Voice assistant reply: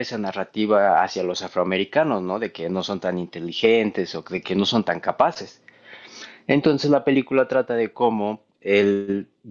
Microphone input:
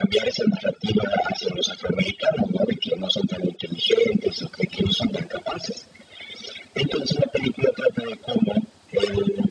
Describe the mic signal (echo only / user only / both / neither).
echo only